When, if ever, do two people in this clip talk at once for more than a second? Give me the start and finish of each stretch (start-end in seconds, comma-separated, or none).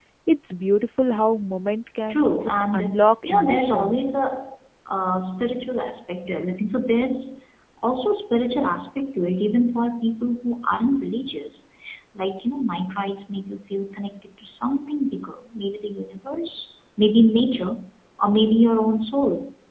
2.1-4.0